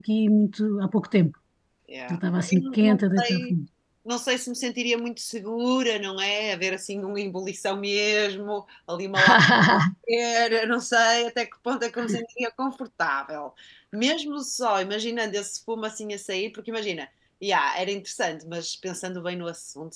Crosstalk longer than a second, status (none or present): present